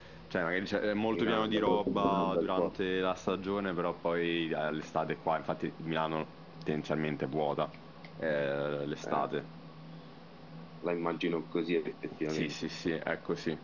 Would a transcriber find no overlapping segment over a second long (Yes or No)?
No